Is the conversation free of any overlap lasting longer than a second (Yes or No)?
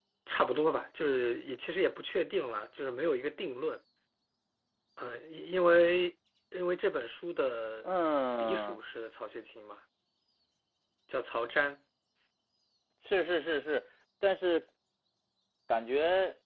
Yes